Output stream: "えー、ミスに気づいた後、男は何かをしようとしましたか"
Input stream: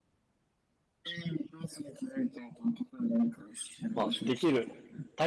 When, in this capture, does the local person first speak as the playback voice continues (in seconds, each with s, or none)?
4.0 s